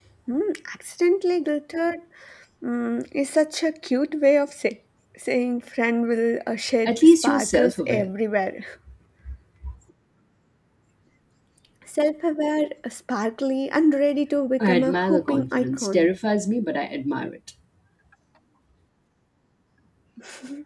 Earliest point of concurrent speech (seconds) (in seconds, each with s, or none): 6.8 s